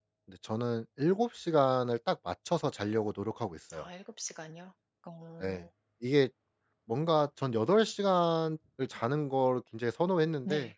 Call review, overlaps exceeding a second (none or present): none